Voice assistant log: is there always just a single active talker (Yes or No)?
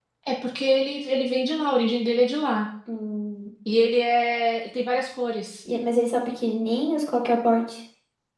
Yes